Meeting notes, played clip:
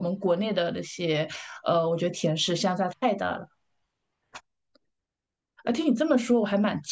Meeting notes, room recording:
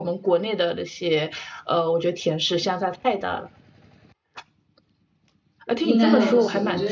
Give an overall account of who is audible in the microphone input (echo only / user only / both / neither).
both